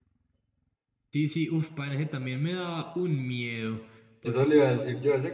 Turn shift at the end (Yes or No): Yes